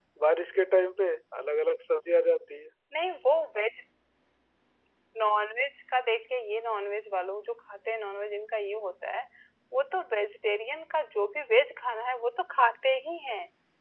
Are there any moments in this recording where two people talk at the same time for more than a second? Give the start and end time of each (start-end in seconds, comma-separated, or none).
none